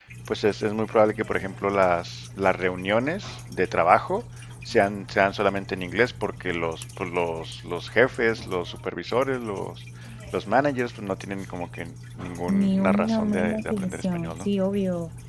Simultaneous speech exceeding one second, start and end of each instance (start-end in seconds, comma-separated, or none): 12.5-14.5